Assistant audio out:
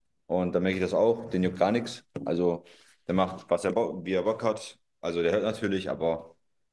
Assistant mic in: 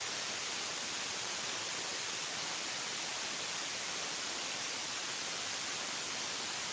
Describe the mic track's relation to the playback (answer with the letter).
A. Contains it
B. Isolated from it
B